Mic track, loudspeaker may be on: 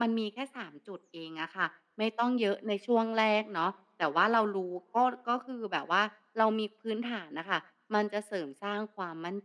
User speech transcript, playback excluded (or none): none